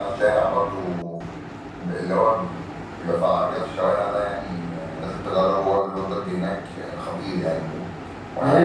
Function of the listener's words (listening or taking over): taking over